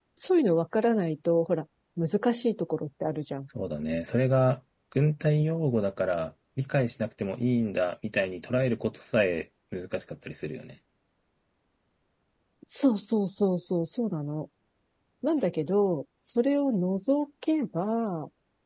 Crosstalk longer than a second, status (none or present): none